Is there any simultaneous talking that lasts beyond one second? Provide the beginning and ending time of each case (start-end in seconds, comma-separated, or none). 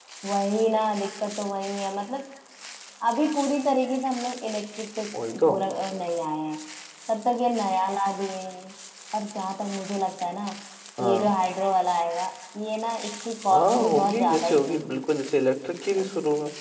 13.5-15.0